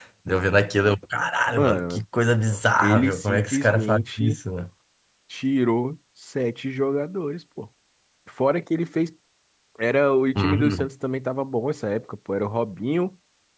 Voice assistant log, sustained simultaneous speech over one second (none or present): present